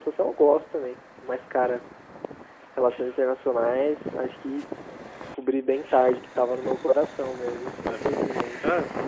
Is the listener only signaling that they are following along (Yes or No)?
No